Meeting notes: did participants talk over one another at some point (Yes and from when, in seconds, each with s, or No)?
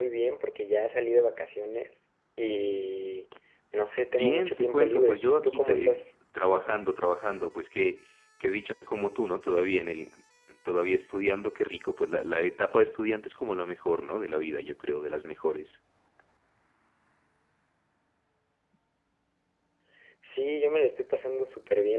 Yes, from 4.2 s